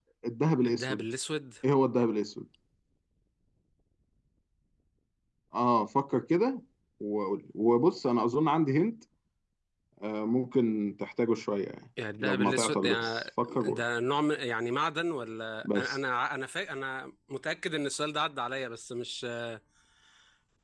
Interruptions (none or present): present